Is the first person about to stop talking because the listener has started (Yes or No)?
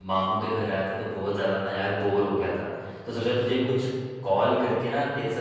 No